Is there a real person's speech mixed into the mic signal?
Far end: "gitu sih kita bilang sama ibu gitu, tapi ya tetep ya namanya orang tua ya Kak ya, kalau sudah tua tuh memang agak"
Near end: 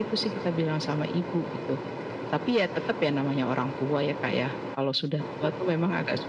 No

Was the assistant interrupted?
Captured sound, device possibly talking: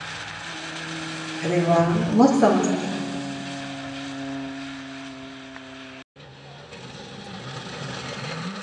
Yes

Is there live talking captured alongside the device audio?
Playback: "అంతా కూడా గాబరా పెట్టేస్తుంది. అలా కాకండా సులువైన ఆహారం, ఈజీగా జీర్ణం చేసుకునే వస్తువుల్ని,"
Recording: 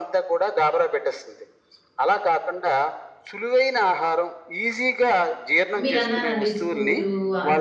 Yes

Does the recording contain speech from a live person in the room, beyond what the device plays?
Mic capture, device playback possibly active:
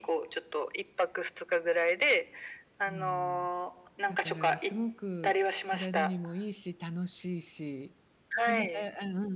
Yes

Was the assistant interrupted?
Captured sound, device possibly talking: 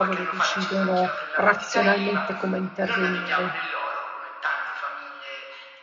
Yes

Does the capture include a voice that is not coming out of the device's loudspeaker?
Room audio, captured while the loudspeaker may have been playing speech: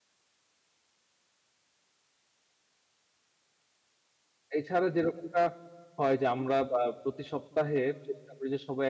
Yes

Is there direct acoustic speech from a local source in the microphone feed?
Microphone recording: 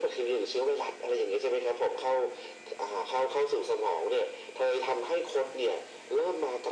No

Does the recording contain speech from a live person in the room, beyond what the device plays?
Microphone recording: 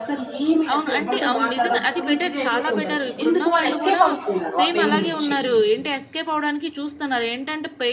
Yes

